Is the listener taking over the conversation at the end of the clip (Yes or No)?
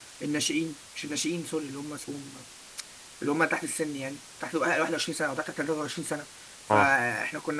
No